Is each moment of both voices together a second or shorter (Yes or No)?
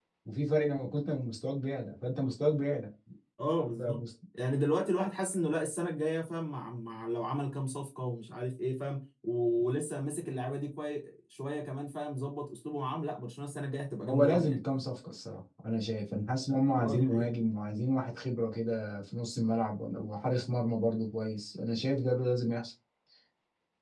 Yes